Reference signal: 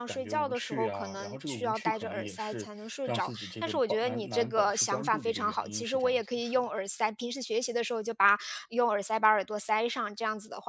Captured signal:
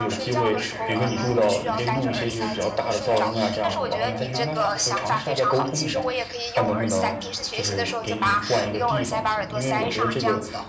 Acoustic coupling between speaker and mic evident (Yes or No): Yes